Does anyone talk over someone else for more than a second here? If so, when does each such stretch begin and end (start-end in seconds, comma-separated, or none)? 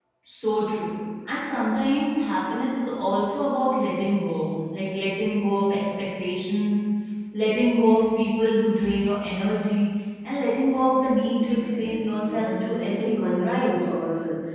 11.4-13.7